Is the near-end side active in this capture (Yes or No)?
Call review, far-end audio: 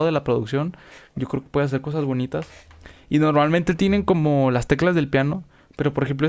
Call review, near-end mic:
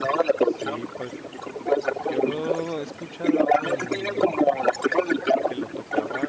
Yes